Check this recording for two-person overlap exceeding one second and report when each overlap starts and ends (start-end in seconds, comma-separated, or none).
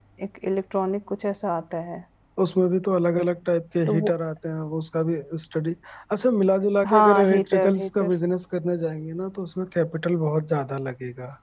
6.8-8.1